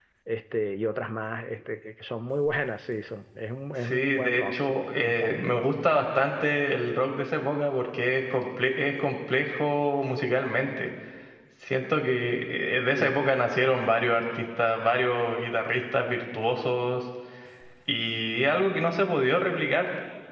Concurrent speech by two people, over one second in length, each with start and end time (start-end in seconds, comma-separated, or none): 3.9-5.4